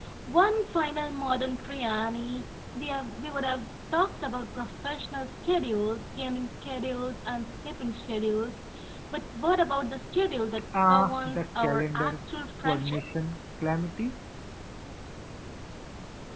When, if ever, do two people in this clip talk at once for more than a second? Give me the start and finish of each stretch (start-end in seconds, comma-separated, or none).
10.9-12.2